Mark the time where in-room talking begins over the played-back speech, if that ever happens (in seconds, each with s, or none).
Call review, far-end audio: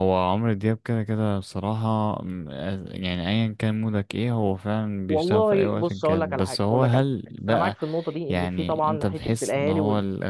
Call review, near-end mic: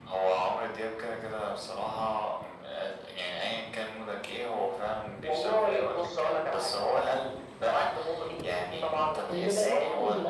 9.3 s